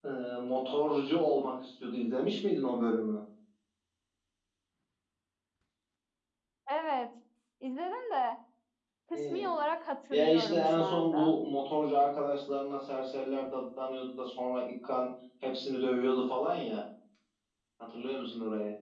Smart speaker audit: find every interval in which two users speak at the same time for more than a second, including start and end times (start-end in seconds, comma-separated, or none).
10.1-11.3